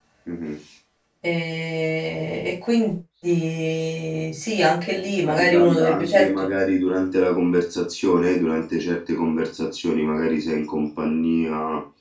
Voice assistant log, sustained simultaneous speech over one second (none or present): present